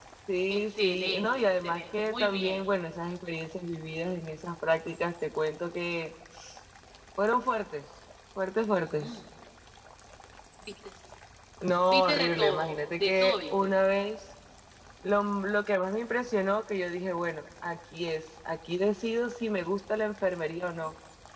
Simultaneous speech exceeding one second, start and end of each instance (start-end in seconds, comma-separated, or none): 0.5-2.6, 11.9-13.7